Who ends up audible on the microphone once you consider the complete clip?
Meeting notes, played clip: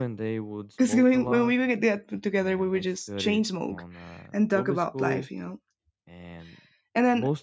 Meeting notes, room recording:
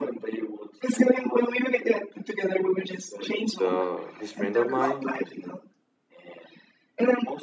both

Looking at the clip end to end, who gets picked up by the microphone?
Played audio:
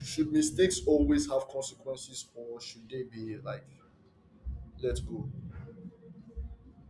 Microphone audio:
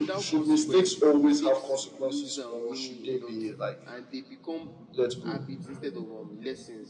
both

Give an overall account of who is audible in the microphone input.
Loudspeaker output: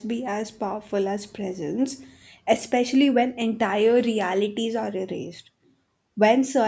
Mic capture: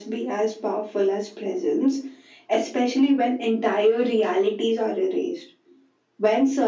echo only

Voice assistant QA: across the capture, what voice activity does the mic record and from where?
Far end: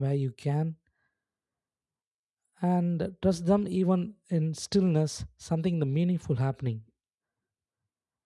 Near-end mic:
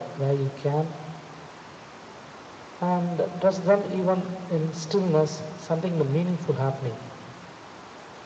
echo only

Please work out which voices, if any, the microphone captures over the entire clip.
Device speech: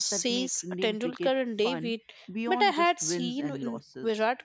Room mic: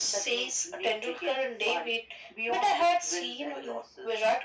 echo only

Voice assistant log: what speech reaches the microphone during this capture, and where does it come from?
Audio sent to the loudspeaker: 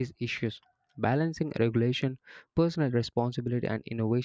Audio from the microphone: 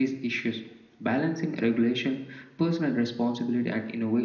echo only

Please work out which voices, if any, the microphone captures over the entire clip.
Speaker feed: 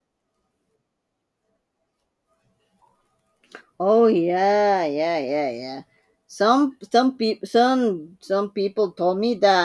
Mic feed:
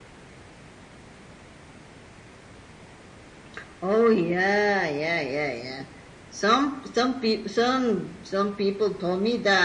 echo only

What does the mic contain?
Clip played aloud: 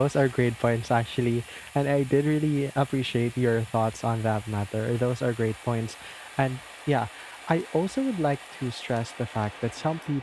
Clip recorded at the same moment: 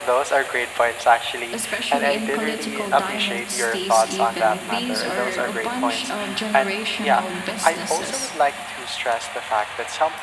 both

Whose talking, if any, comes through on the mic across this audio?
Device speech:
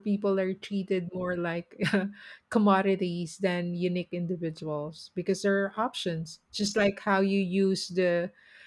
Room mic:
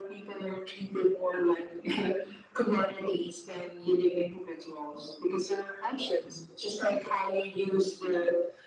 echo only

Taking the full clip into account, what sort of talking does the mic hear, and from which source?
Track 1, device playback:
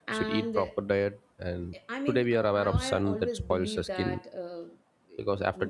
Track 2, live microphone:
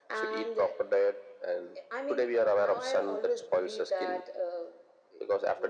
echo only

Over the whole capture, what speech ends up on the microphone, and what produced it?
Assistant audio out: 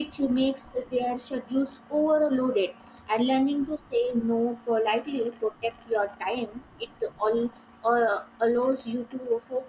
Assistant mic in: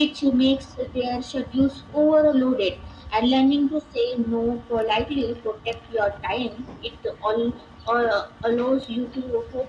echo only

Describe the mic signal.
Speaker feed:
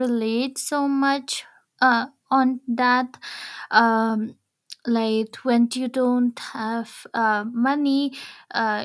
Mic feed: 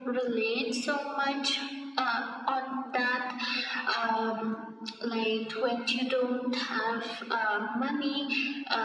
echo only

